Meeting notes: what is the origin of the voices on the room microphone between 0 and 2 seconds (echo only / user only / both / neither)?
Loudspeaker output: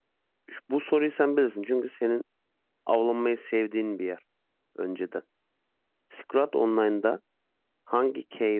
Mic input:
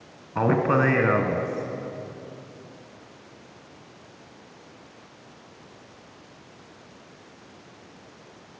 user only